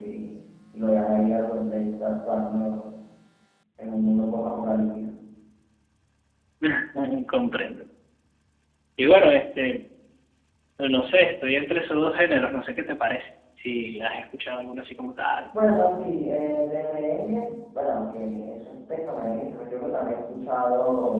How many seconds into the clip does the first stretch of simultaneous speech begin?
none

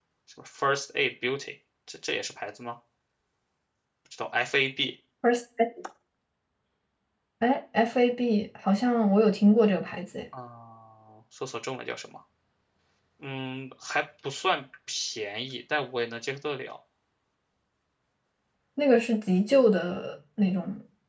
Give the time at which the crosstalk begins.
none

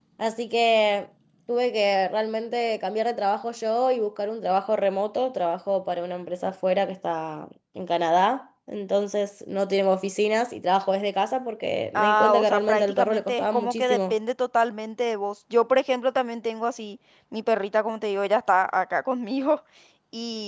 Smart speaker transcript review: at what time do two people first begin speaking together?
11.9 s

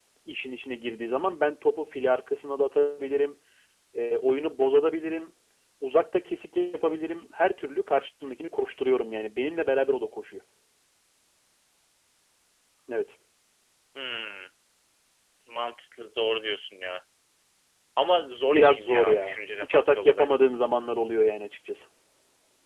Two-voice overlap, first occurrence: 18.4 s

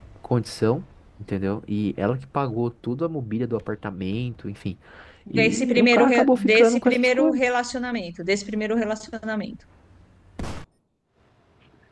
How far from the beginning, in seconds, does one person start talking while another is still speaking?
5.4 s

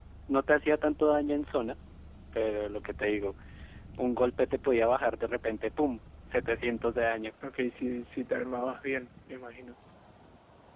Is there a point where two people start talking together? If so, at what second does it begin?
none

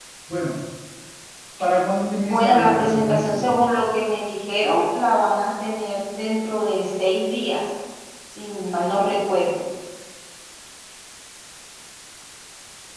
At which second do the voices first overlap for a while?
2.2 s

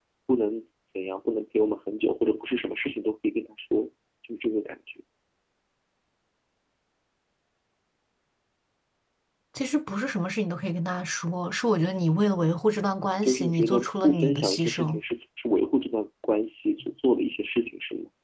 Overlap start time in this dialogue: 13.2 s

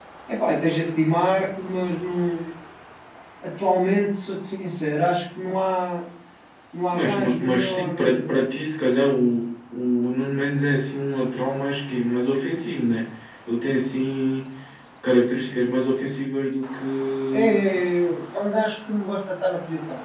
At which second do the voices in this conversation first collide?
6.9 s

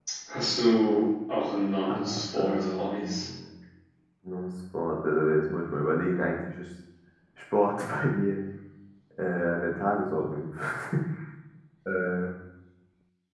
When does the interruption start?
1.9 s

